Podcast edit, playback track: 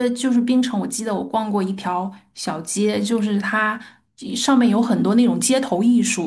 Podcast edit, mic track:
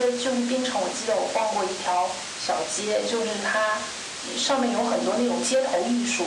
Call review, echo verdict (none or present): present